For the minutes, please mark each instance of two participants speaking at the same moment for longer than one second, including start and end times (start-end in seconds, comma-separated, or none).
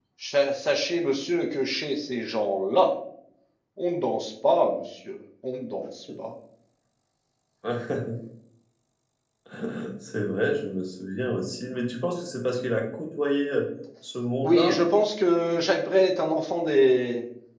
none